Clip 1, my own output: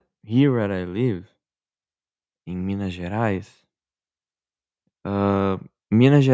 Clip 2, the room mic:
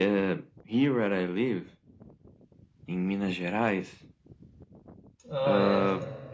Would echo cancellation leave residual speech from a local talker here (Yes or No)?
Yes